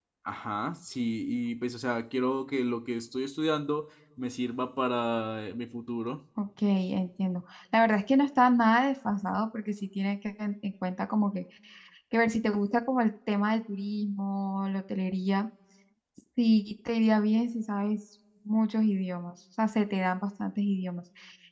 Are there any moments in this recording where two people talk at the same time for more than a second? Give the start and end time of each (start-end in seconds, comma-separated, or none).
none